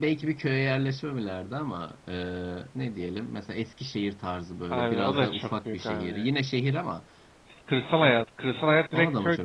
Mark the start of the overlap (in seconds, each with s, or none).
4.7 s